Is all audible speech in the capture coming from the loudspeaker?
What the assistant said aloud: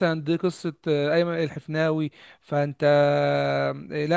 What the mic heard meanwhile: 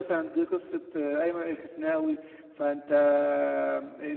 Yes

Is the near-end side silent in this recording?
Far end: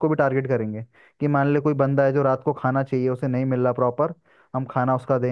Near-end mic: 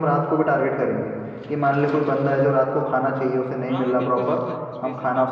No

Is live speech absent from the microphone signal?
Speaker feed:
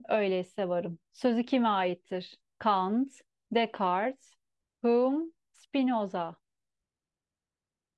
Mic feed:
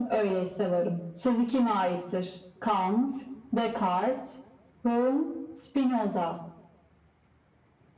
Yes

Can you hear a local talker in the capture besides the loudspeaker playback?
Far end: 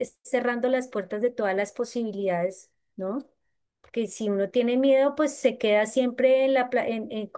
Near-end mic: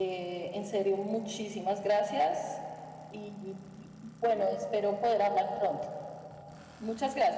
Yes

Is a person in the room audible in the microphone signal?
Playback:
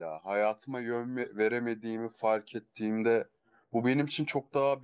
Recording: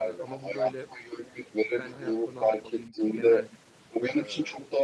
Yes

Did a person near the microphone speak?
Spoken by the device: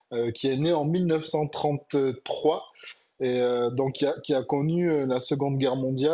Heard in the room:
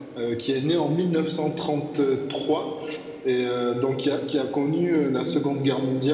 No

